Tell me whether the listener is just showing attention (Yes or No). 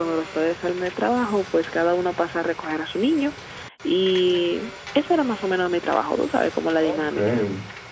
No